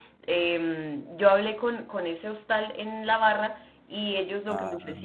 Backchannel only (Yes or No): Yes